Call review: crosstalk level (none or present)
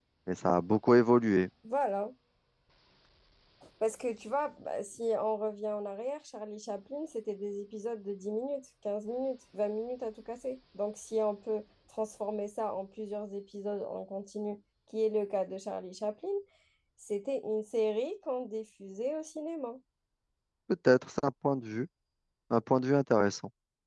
none